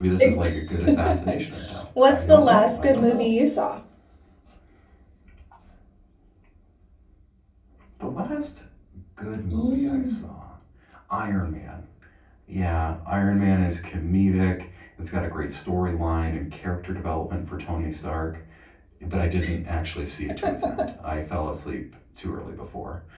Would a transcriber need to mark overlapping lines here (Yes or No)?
Yes